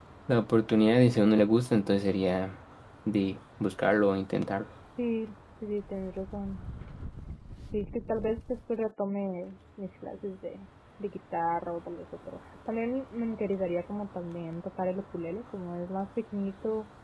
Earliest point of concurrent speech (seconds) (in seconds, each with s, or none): none